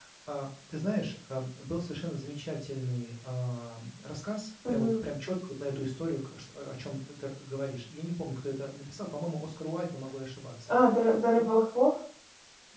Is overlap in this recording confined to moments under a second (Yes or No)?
Yes